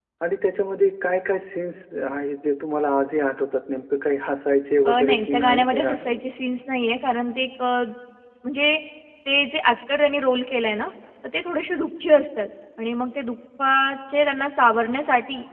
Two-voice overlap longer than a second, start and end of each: 4.8-6.3

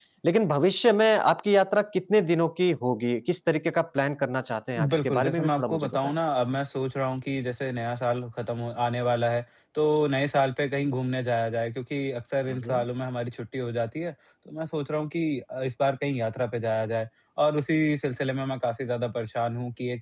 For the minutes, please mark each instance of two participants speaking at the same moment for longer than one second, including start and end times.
4.9-6.1

